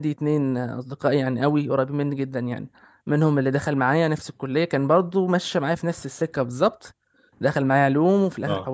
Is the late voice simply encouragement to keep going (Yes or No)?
Yes